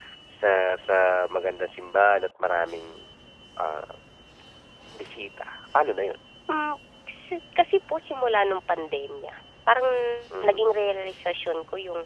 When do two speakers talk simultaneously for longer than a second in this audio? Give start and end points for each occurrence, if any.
none

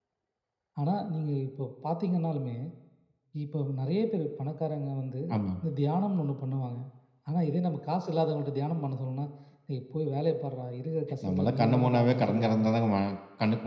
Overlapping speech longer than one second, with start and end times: 11.3-12.6

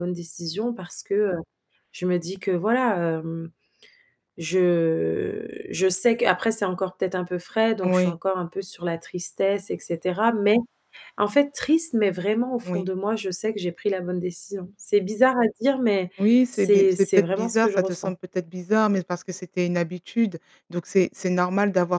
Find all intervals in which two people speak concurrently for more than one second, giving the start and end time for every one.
16.5-18.1

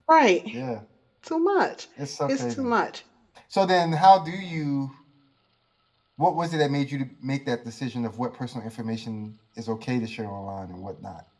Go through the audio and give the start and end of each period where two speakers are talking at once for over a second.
none

